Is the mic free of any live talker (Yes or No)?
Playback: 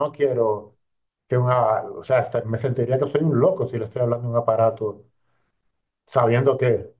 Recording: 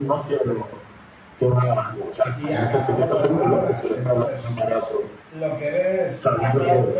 No